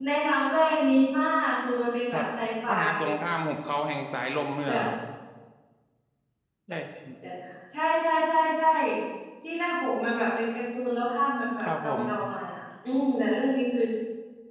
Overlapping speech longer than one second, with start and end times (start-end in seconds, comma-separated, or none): none